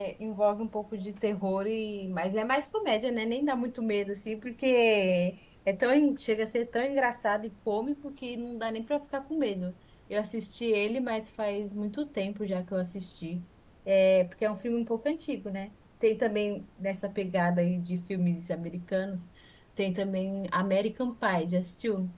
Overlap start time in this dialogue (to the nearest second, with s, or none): none